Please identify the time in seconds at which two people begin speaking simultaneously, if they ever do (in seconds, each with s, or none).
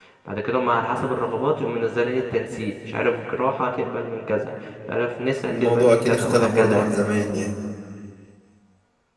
5.5 s